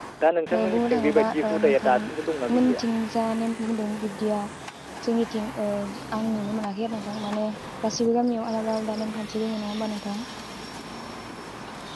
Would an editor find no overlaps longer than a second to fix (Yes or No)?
No